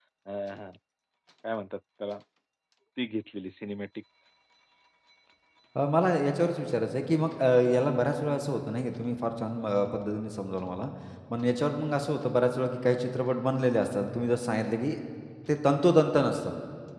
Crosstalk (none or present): none